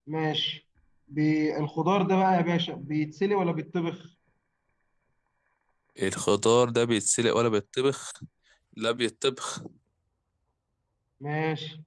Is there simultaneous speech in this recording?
No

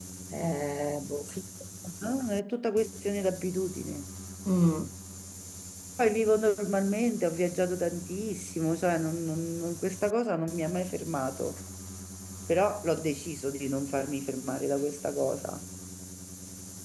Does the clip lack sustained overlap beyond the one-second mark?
Yes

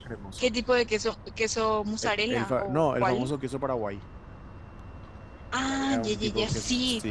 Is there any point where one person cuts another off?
Yes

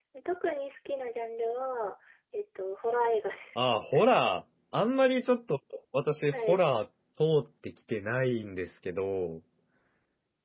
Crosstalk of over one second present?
No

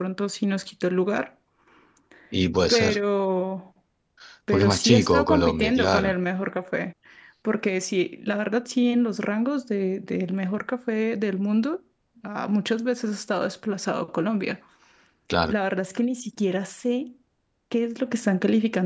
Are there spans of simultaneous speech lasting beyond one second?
Yes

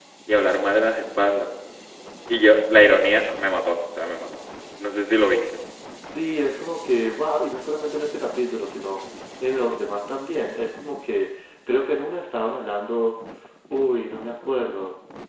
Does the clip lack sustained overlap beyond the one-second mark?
Yes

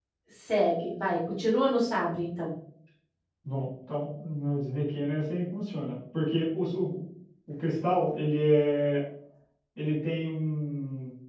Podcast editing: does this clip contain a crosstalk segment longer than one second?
No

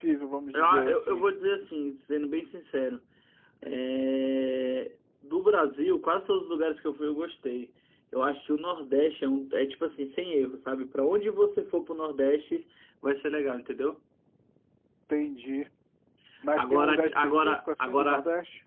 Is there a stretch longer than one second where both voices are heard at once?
Yes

